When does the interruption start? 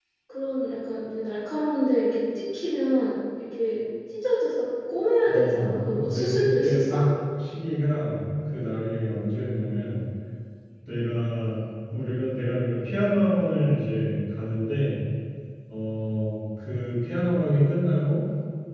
5.3 s

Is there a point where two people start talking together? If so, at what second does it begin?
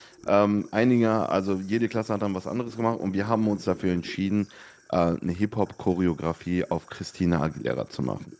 none

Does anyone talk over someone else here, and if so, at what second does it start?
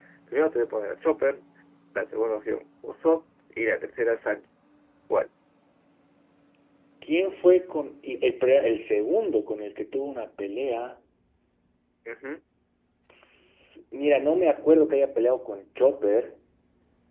none

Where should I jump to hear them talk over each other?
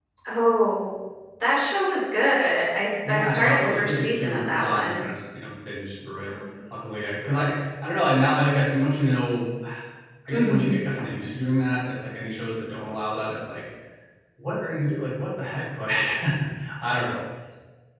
3.0 s

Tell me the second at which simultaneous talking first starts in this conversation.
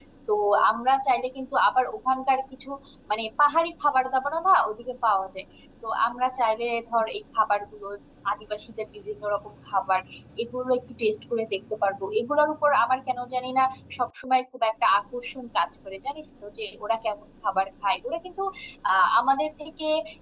none

